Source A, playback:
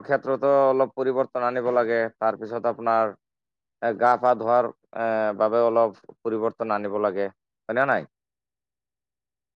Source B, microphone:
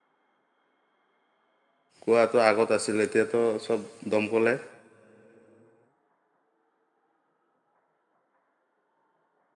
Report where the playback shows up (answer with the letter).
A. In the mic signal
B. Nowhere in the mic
B